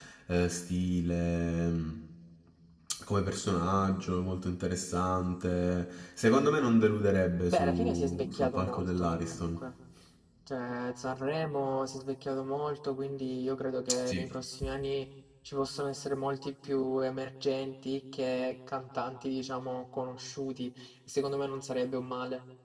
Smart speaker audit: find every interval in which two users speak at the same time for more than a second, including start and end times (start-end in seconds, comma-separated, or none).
7.5-9.7